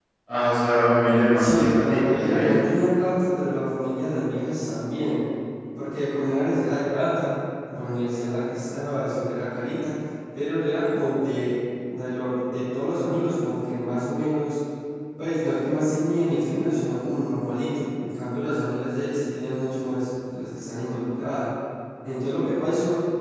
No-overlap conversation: No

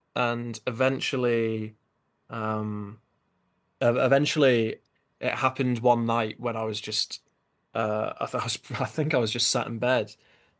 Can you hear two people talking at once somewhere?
No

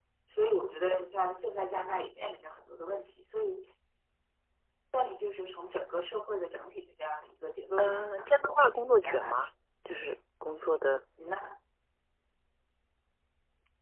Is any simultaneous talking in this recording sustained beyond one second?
Yes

